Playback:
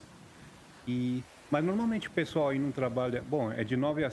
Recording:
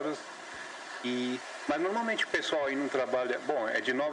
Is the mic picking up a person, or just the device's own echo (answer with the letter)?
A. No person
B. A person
A